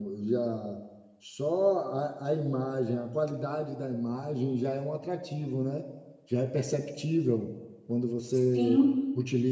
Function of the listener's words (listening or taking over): listening